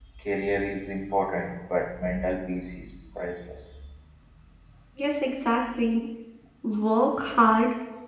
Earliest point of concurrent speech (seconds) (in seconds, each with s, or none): none